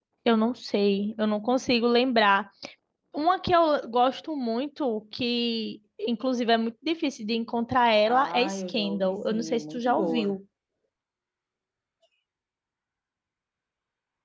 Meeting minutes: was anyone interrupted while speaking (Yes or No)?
Yes